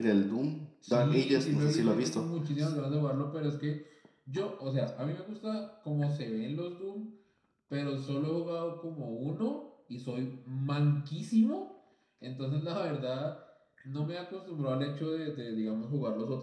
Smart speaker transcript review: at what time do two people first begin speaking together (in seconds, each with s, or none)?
0.9 s